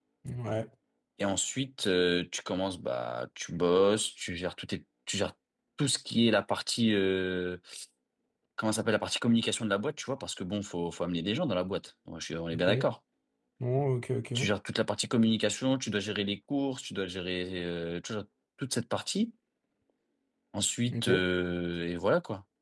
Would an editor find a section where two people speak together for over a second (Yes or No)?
No